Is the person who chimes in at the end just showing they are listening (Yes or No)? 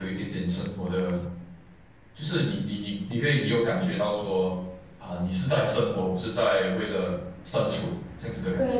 No